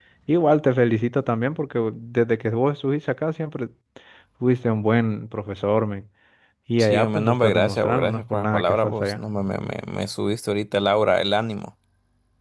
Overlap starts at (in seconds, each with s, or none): 6.8 s